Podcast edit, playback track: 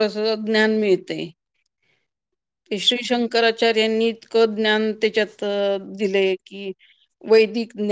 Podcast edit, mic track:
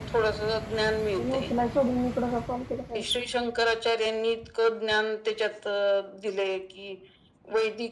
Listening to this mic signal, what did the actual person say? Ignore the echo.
तिने उचलाय सोडून इकडं का कॉल केला काय माहित

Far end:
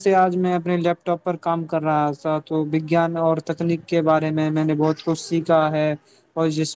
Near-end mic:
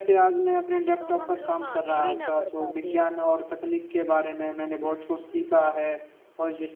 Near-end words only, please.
تو ہم لوگ آگے بھی نہ بڑھ پاتے

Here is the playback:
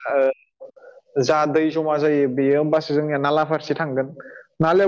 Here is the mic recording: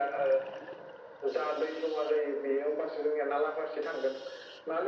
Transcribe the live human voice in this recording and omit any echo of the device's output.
none

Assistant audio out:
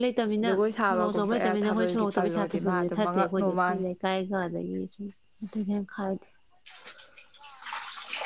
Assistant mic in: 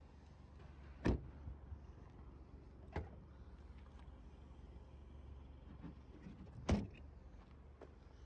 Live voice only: none

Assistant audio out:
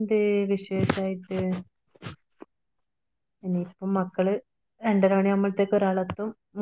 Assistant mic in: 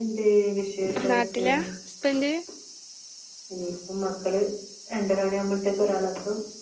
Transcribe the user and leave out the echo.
നാട്ടിലാ ഹസ്ബന്റ്?

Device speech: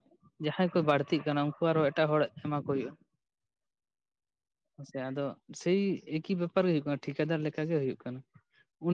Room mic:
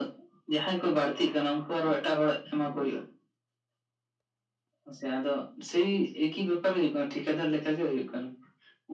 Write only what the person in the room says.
none

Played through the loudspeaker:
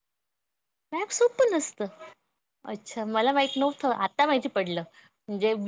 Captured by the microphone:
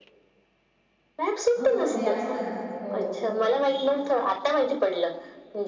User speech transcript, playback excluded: हो नाही असतं ना हो

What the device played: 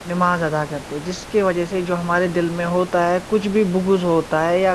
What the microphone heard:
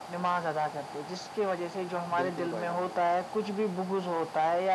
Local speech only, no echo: بالکل بھائی جان بالکل

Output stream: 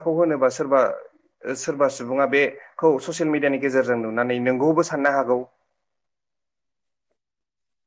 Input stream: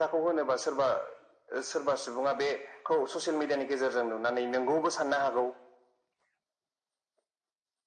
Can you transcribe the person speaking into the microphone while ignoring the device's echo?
none

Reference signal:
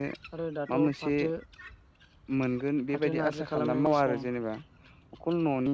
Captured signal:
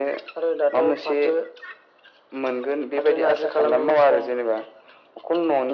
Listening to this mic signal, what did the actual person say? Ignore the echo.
none

